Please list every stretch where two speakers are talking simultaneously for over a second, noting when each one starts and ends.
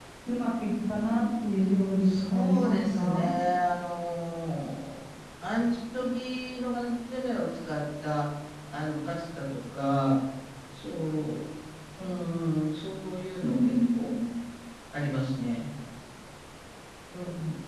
2.0-3.3

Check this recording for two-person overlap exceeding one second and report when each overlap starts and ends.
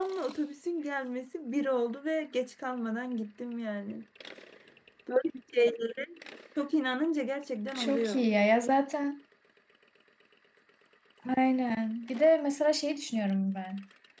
none

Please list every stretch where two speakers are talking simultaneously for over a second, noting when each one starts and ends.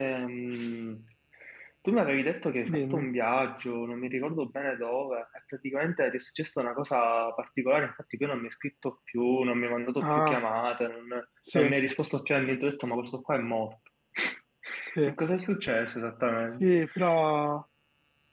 none

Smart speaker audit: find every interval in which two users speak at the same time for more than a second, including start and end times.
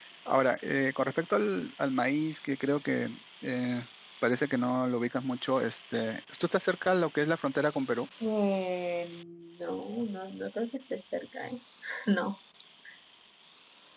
none

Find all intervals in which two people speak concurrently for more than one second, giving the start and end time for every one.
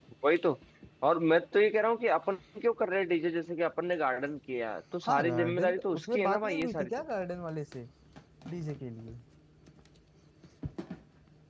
5.1-6.9

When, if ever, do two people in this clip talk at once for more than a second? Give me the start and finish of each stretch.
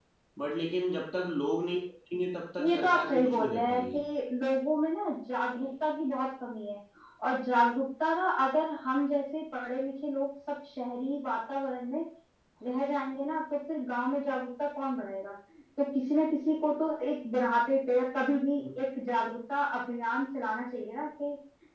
2.6-4.0

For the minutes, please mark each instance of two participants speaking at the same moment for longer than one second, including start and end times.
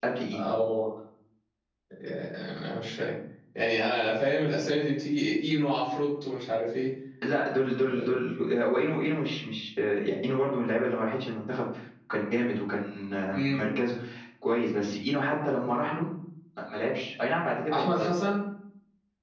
none

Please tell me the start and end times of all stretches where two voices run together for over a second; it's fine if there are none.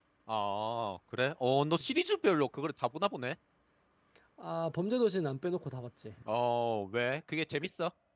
none

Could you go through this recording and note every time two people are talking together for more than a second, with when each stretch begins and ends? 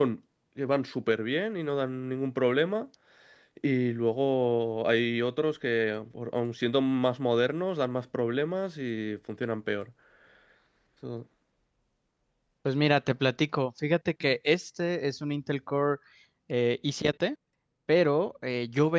none

